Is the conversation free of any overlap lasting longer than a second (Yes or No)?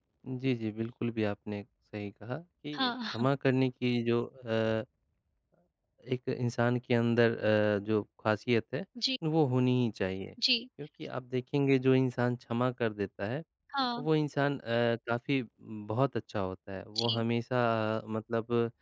Yes